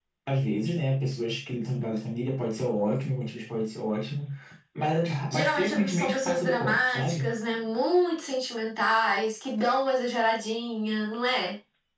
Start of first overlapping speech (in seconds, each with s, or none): 5.3 s